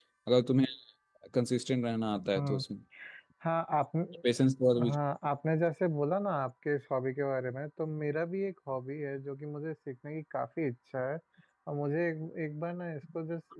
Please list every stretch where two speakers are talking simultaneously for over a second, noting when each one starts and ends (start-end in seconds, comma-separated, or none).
none